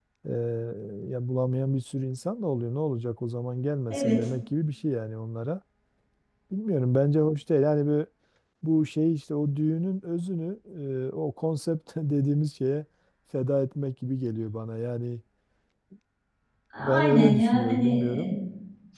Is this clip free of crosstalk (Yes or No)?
No